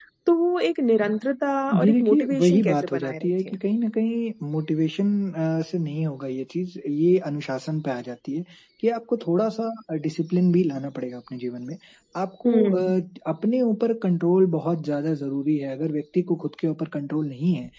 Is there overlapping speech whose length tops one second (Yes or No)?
Yes